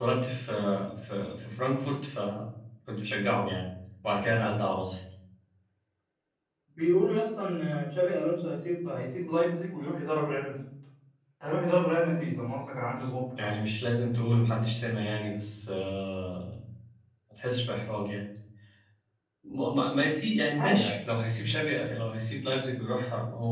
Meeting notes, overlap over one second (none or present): none